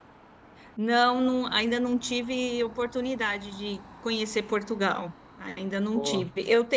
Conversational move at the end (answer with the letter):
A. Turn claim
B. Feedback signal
B